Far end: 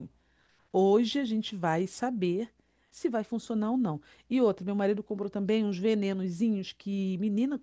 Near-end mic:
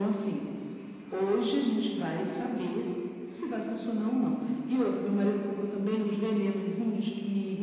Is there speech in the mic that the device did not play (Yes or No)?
No